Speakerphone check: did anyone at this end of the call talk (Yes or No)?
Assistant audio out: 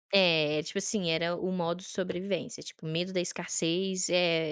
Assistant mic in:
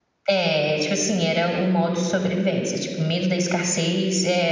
No